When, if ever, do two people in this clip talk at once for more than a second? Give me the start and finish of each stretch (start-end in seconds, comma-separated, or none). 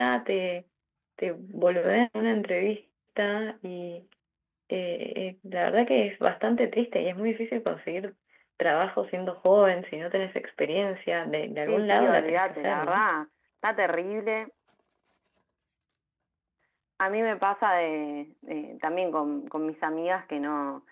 11.7-13.0